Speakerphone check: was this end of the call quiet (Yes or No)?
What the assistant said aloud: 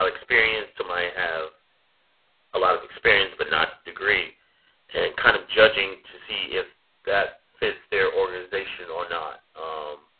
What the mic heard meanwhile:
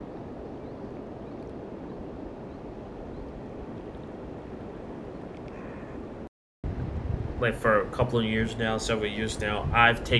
No